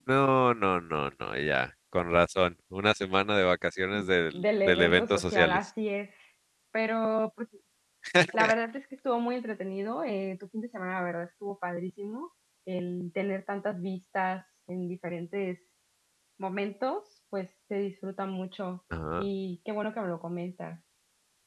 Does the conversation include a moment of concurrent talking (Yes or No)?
Yes